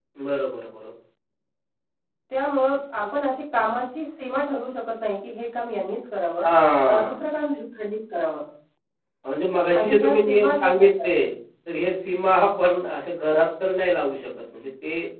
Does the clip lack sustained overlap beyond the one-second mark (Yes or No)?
No